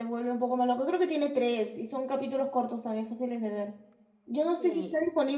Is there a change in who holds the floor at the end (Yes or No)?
No